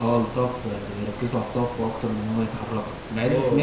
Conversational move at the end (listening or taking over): listening